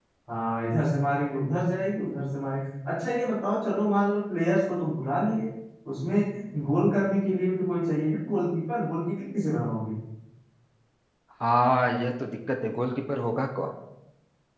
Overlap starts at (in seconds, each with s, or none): none